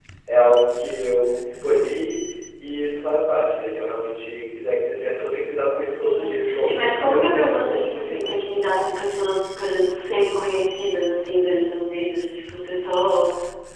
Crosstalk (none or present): present